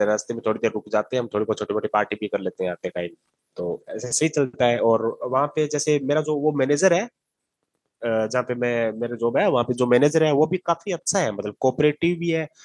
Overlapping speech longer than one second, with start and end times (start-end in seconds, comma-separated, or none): none